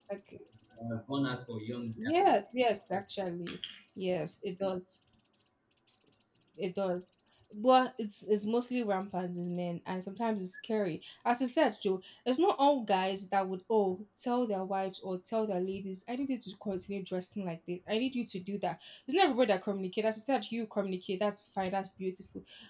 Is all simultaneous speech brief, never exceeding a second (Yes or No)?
Yes